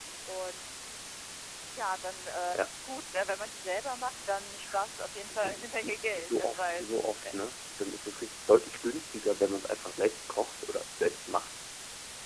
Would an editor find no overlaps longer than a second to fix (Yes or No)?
No